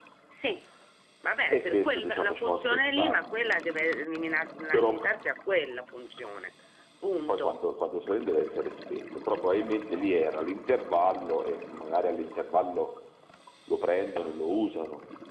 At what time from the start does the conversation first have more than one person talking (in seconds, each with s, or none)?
1.5 s